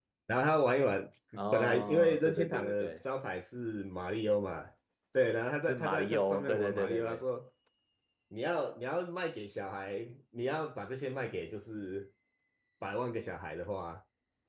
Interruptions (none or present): present